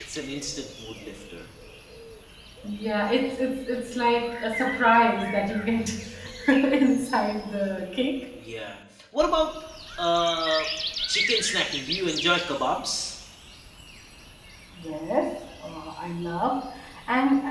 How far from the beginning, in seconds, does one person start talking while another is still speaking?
none

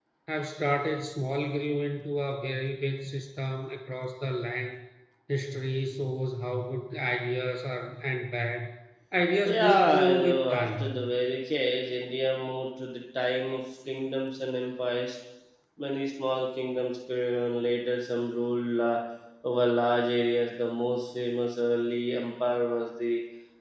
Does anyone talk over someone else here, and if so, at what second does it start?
9 s

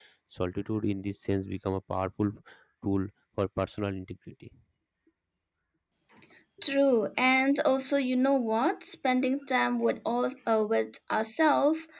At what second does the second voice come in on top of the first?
none

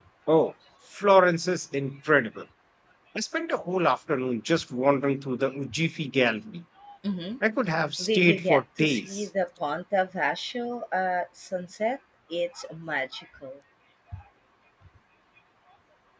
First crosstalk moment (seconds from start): 8 s

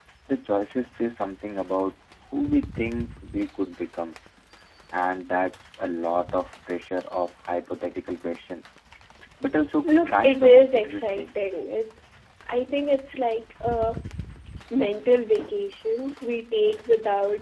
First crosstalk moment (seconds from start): 10 s

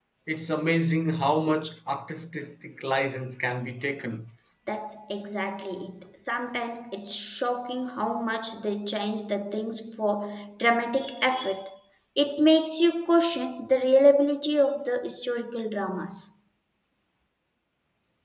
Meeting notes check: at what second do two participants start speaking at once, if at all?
none

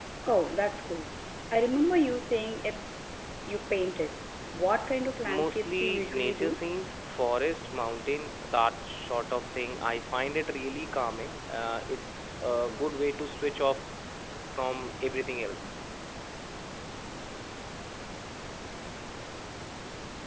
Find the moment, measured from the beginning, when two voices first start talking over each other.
5 s

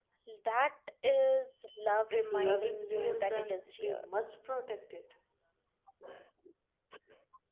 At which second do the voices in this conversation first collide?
2 s

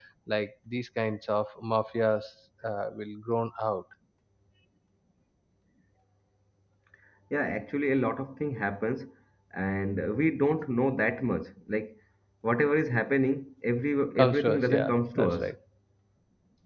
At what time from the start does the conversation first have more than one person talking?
14 s

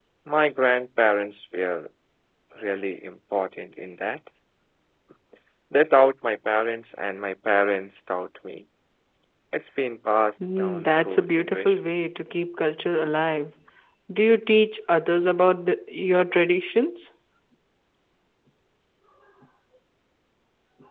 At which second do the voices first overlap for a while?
10 s

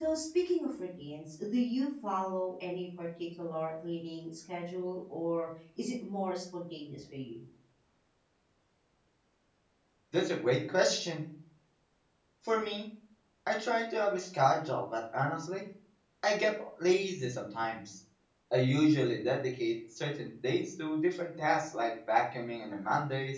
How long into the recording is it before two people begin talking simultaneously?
none

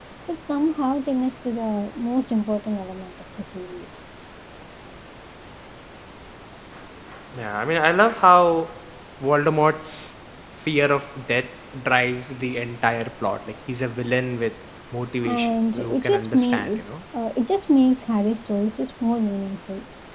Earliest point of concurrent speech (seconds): 15 s

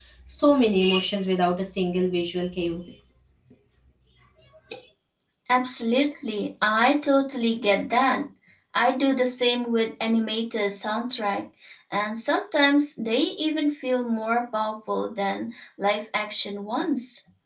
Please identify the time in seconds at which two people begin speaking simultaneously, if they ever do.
none

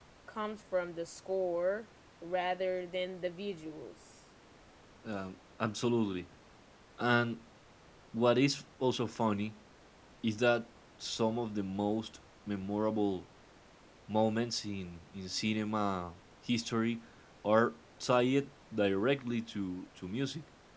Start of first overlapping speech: none

